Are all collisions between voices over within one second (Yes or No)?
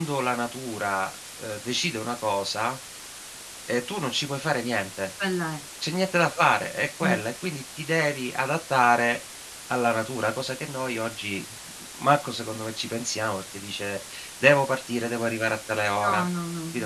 Yes